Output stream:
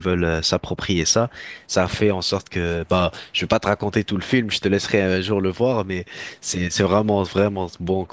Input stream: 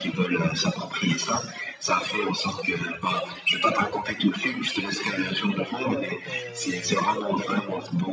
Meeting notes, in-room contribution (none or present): present